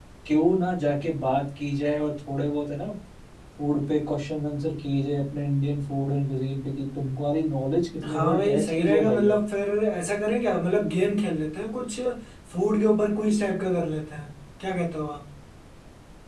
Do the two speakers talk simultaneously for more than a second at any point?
Yes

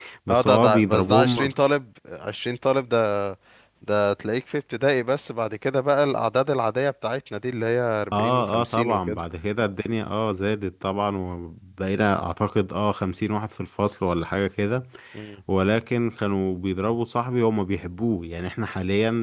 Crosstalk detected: Yes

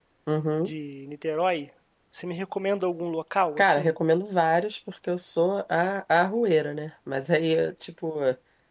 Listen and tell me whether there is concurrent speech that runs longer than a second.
No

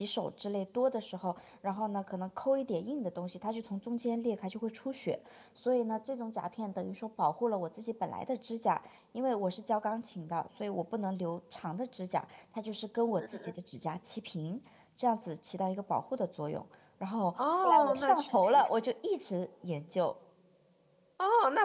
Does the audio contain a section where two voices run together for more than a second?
Yes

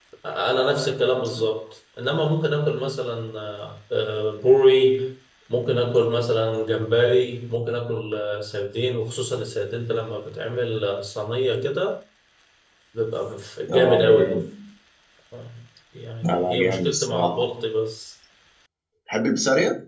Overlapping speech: Yes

